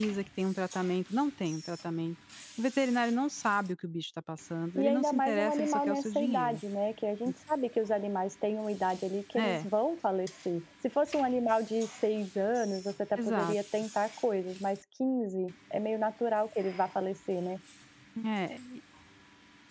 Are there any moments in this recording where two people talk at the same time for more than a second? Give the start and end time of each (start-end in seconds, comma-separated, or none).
4.8-6.6